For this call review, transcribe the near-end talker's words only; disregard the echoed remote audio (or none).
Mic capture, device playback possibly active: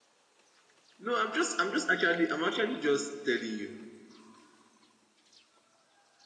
No, I'm just I'm just actually I'm actually just telling you